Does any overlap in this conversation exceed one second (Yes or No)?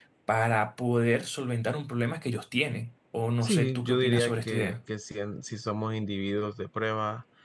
Yes